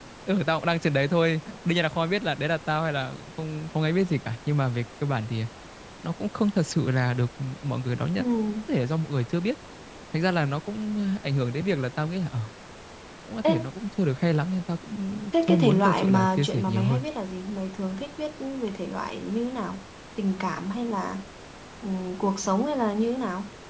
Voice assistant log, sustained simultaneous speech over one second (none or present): present